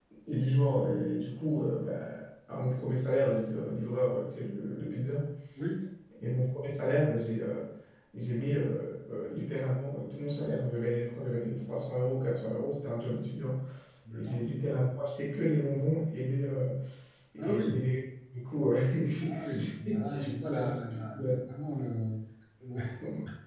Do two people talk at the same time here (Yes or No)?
Yes